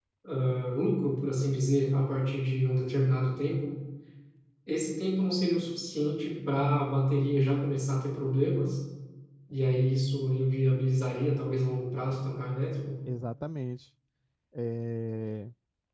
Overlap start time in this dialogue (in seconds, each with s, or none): none